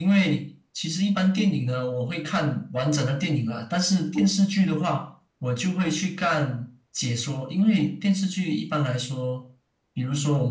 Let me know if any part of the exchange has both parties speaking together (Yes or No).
No